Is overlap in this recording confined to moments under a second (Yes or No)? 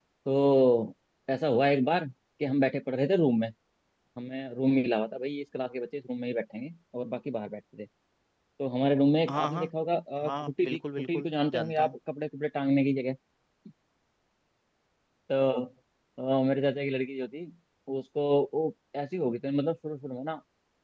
No